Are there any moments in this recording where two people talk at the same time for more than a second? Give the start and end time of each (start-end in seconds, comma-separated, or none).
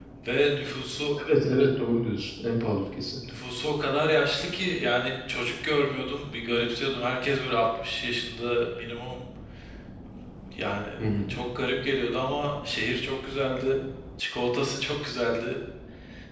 none